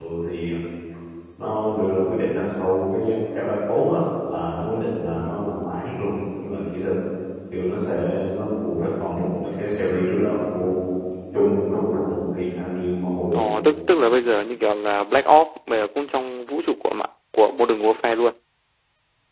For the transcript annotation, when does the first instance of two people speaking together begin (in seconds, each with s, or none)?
none